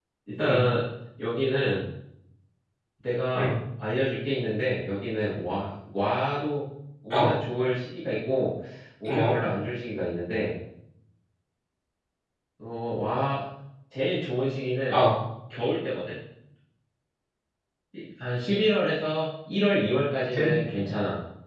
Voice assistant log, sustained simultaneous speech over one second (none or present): none